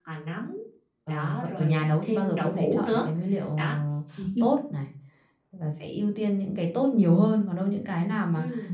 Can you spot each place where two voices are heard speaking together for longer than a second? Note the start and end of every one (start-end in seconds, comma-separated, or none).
1.1-3.0